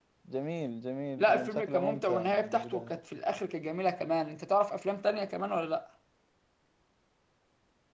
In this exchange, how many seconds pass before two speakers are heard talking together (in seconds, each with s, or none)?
1.2 s